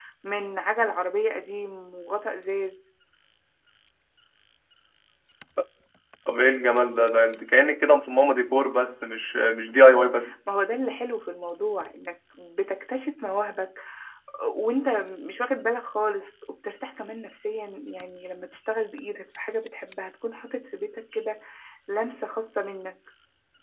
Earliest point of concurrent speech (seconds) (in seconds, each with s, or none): none